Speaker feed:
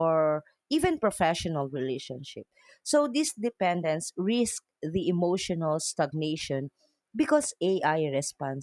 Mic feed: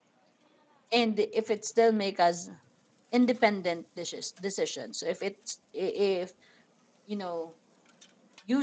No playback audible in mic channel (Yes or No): Yes